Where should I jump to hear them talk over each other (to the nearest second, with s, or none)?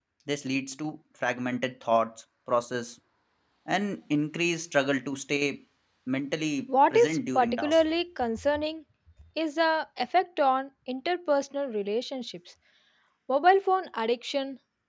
7 s